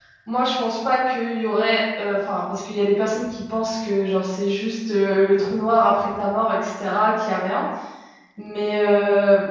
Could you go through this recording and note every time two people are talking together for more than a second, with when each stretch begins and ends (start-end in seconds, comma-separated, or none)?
none